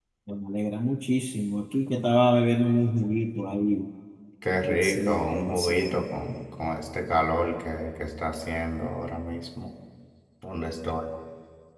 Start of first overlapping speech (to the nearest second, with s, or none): 5 s